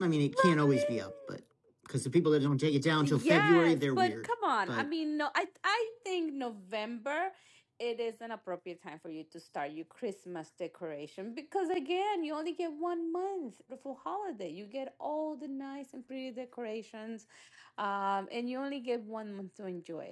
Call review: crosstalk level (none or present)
present